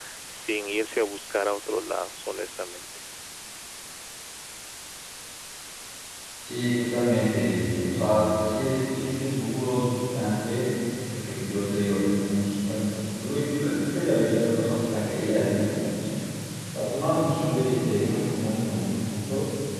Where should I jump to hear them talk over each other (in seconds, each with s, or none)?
none